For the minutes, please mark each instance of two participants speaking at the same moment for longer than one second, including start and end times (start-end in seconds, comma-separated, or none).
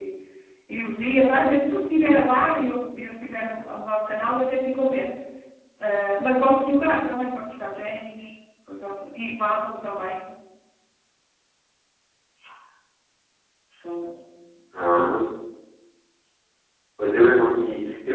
none